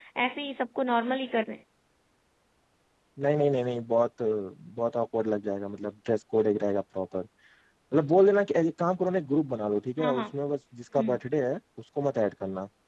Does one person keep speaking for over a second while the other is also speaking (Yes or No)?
No